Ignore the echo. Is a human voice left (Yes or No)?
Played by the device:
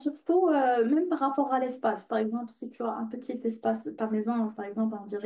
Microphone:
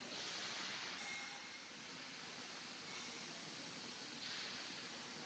No